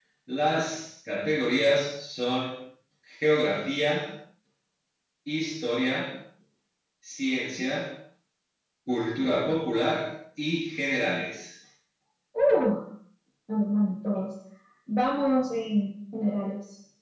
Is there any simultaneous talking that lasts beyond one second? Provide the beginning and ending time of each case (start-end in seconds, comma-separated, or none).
none